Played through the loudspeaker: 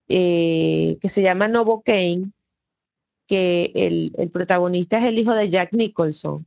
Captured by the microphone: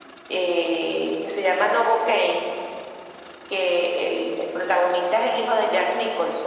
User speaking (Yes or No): No